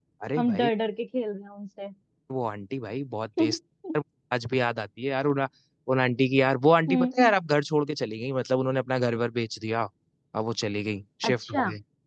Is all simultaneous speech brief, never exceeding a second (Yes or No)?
Yes